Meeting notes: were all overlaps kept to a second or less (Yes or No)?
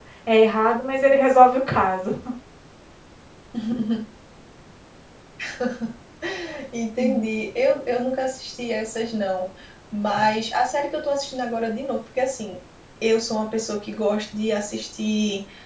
Yes